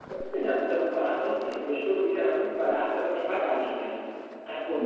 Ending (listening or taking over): taking over